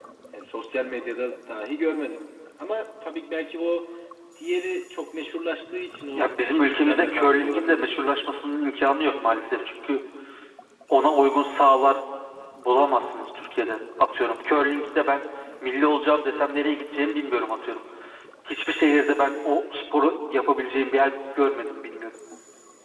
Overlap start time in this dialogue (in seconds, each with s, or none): 6.2 s